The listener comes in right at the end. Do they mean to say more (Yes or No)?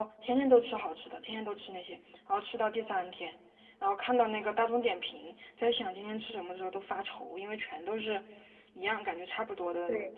Yes